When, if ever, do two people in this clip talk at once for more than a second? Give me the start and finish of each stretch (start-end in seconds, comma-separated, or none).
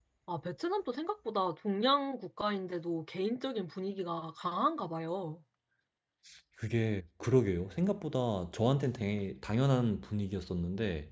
none